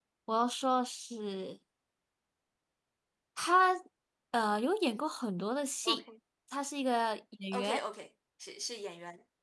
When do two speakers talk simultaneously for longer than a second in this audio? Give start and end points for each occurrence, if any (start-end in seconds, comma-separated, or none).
none